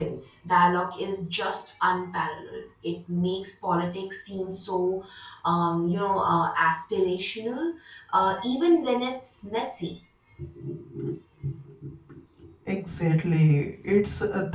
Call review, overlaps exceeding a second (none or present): none